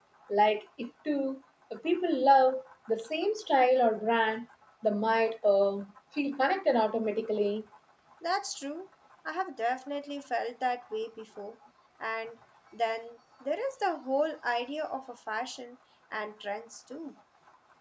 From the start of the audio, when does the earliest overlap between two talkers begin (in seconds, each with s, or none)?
none